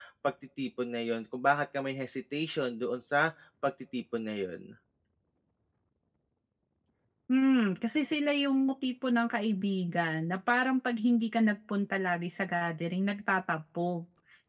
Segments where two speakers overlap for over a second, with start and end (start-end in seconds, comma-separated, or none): none